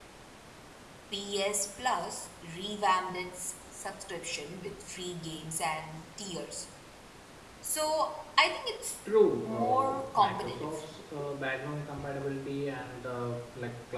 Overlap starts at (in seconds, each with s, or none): 9.5 s